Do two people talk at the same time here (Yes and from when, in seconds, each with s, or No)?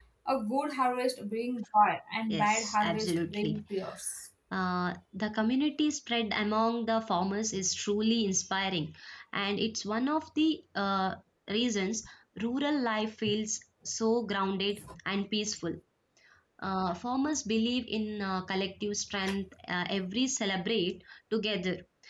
Yes, from 2.3 s